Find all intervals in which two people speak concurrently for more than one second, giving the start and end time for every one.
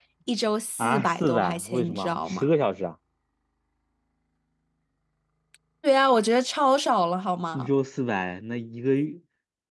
0.8-2.5

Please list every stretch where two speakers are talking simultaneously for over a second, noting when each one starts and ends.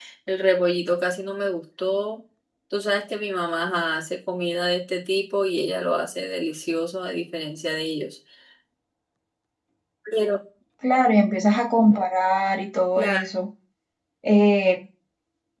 none

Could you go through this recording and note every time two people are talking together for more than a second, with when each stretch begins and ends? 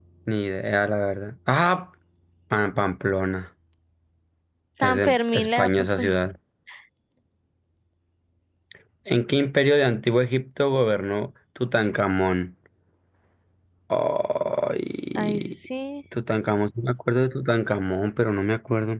4.8-6.1

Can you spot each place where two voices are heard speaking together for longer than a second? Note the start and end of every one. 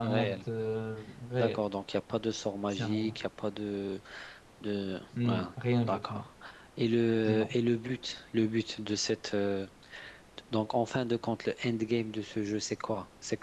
none

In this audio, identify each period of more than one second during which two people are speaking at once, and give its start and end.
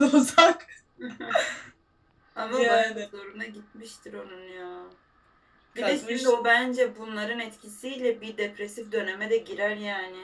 none

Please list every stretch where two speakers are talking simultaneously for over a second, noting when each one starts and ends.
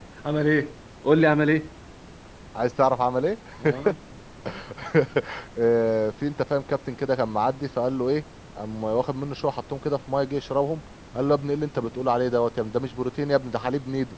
none

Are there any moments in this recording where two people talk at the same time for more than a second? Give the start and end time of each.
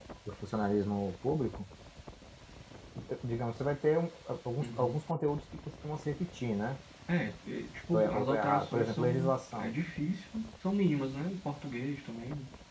7.9-9.7

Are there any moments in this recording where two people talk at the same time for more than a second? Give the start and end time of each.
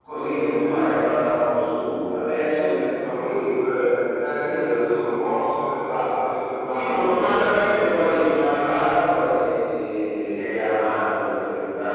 6.7-8.4

